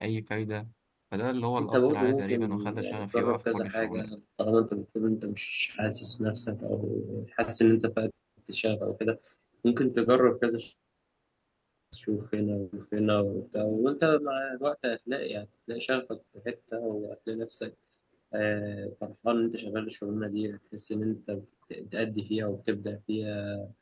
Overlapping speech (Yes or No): Yes